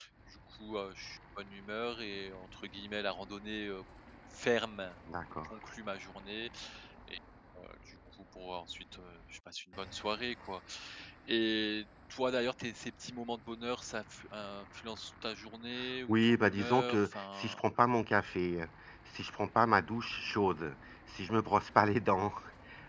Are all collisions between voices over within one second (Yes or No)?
No